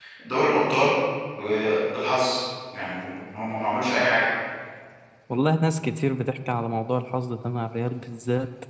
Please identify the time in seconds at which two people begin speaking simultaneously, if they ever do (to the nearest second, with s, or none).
none